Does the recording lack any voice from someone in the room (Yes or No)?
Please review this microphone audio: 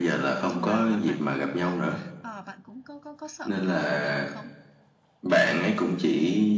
No